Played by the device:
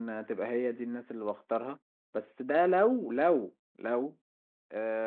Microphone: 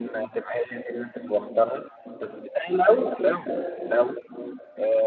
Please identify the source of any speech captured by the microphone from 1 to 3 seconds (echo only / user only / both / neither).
echo only